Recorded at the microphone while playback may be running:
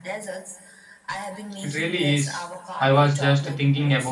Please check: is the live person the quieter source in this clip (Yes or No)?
No